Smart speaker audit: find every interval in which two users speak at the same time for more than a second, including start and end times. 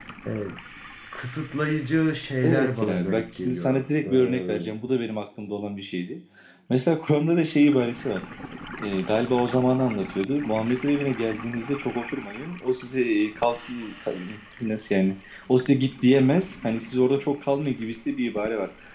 2.4-4.7

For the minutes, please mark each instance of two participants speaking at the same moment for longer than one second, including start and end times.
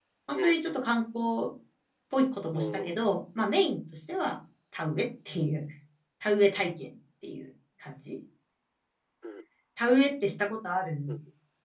none

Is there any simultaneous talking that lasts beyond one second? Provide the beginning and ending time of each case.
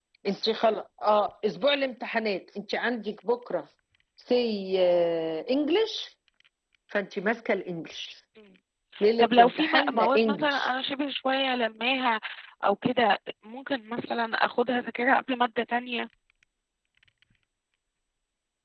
9.2-10.7

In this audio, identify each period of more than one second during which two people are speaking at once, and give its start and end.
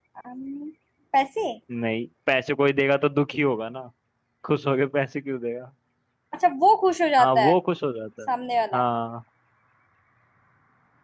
none

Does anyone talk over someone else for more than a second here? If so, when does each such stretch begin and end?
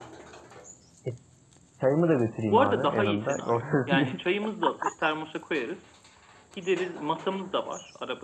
2.4-4.3

